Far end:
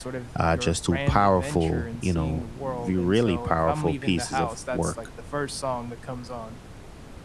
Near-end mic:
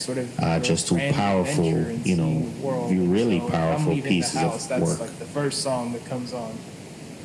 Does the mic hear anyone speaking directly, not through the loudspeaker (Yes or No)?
No